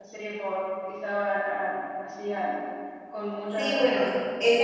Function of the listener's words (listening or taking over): taking over